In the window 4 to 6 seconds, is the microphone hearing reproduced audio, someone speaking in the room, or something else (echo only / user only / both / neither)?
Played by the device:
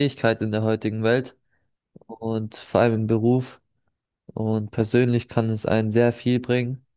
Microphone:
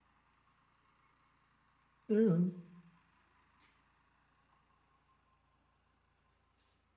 neither